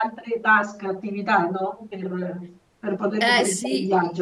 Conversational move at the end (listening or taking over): taking over